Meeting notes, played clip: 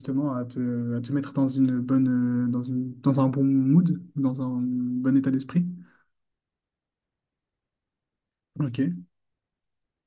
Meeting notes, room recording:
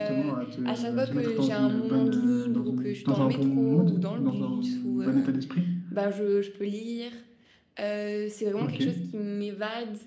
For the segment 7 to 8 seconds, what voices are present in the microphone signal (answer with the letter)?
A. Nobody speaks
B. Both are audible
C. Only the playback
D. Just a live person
D